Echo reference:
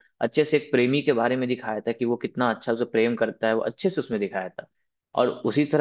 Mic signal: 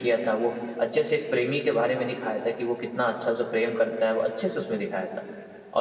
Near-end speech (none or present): none